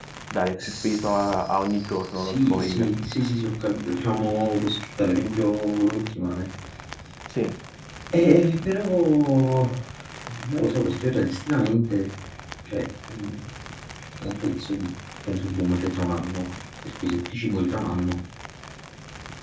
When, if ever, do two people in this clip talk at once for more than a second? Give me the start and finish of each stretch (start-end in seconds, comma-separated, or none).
0.6-2.9